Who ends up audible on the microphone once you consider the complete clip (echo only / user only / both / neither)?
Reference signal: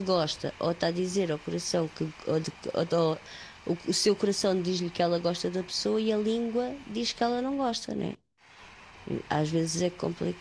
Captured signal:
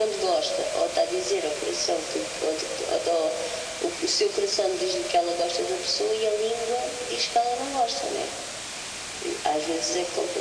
echo only